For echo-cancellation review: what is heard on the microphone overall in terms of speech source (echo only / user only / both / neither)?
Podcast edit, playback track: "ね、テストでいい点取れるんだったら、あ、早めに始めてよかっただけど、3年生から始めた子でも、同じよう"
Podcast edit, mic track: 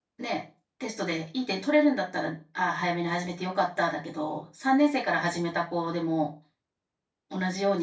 echo only